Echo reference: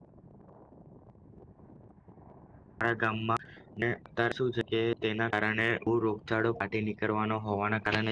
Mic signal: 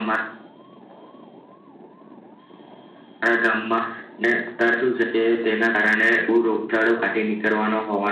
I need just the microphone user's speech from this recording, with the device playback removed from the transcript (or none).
none